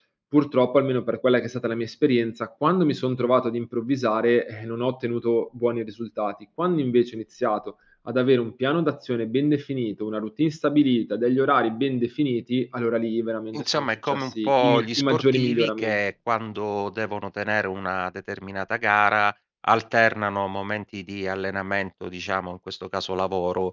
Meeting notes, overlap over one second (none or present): present